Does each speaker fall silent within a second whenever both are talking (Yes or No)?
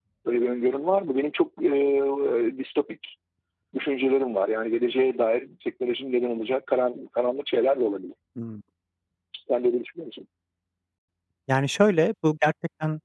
Yes